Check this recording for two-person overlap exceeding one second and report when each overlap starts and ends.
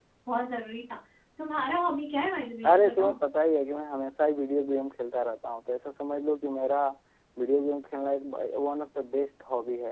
none

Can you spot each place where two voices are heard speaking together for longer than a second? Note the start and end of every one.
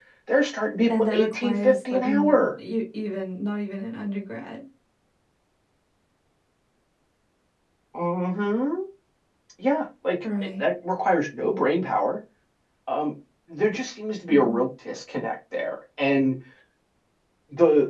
1.0-2.5

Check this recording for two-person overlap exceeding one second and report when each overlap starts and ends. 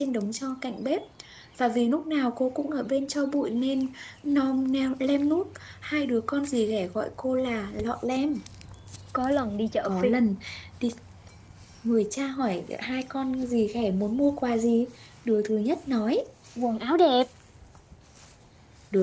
none

